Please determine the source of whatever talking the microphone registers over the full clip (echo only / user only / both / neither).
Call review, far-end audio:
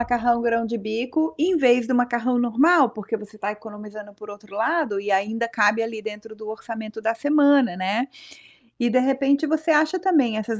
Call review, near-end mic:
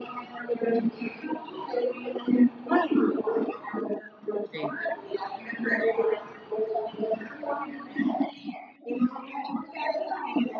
both